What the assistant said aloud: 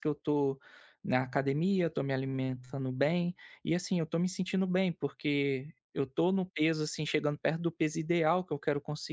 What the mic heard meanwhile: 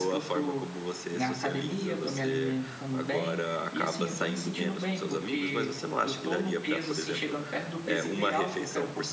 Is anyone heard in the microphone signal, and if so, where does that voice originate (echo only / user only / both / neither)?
both